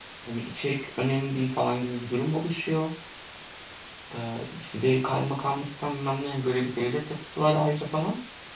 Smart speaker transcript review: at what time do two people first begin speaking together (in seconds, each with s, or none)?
none